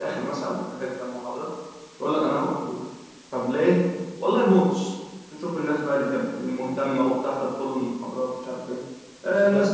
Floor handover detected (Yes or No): No